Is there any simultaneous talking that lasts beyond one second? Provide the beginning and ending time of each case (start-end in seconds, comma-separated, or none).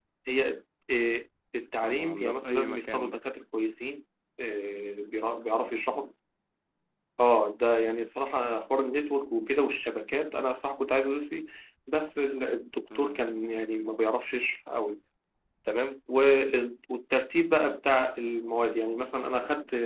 1.8-3.2